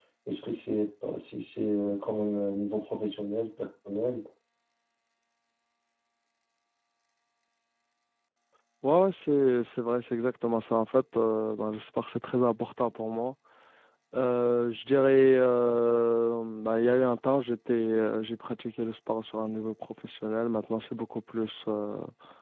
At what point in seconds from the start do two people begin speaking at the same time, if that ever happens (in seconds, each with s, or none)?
none